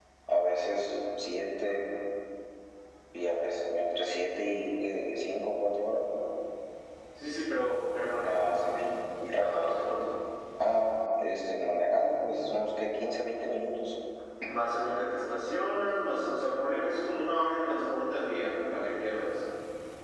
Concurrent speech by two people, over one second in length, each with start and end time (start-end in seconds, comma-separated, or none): none